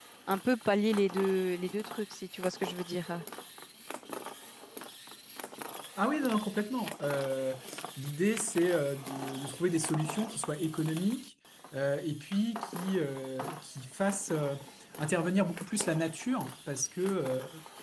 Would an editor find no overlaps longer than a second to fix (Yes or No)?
Yes